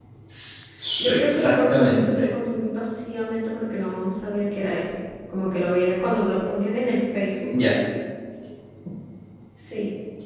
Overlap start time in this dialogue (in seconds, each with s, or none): 1.1 s